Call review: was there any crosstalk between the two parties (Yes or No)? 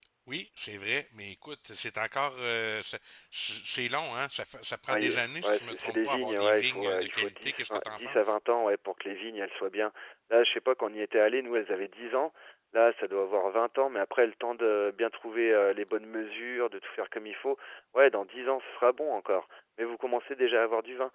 Yes